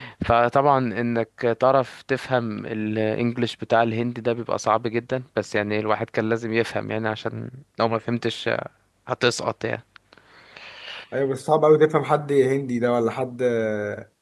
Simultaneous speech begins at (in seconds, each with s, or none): none